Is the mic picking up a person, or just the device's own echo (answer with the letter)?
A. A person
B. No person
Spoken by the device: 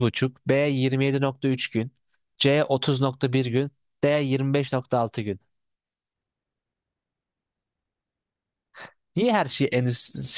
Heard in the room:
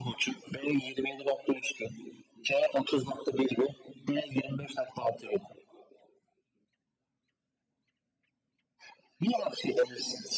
B